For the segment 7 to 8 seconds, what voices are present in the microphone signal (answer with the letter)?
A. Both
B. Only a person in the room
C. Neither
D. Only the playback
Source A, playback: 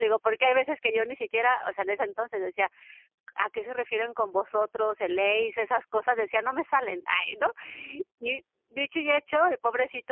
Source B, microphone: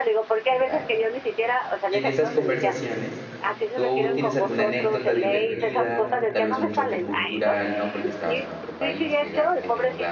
A